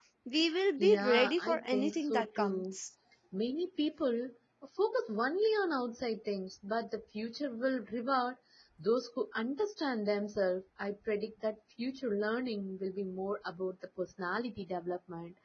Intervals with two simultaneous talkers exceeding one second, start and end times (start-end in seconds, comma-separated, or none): 0.8-2.8